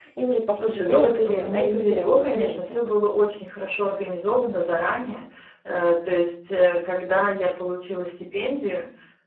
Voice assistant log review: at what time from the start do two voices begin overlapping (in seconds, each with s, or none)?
0.5 s